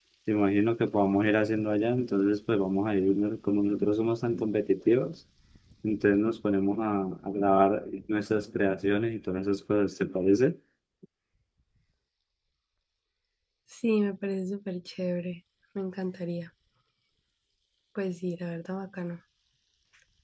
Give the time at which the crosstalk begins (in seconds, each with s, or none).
none